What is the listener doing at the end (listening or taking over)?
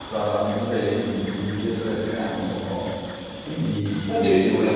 listening